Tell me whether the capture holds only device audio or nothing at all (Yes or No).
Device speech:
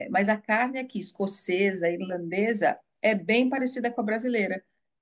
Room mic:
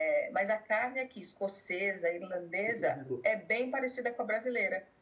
No